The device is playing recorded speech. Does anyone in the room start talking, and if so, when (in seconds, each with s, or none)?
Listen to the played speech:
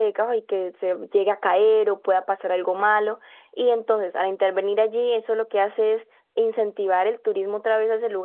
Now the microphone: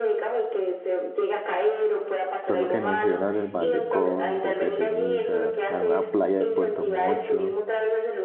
2.4 s